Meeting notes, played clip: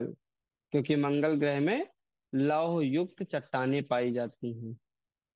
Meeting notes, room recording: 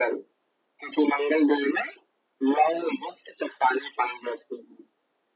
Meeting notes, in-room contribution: none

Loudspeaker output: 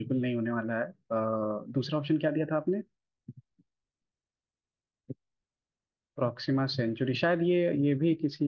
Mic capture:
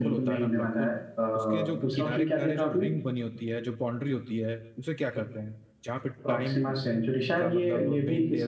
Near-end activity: present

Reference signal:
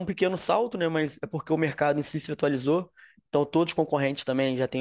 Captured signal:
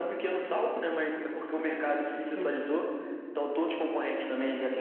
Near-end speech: present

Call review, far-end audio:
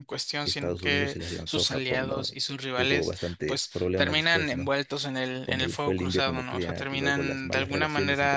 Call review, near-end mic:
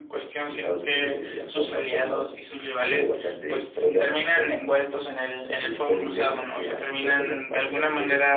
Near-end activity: none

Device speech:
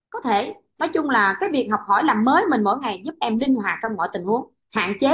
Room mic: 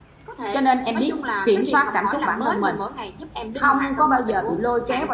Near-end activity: present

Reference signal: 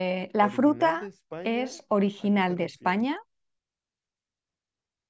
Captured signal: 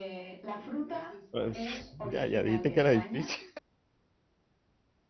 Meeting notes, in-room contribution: present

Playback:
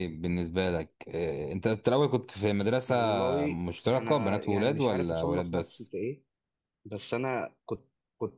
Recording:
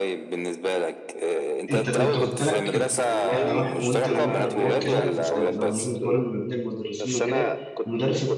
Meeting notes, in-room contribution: present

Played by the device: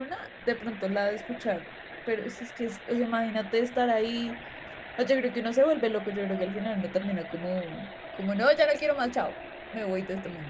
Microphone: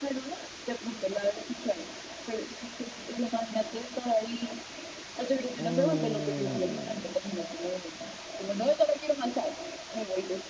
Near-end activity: present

